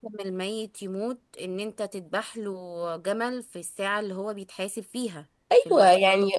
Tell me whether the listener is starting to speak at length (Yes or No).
Yes